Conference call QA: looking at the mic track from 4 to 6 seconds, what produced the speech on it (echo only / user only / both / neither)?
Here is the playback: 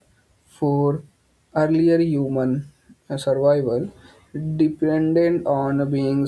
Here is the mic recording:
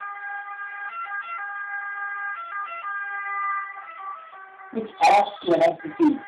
user only